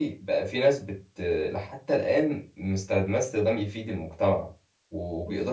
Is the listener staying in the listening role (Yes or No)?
Yes